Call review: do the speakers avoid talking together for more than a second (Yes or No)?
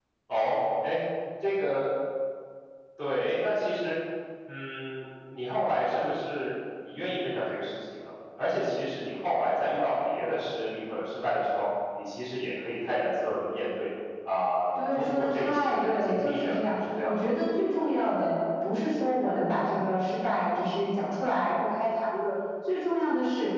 No